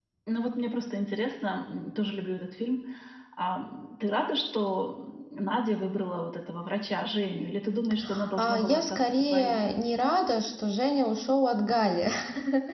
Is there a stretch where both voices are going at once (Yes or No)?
Yes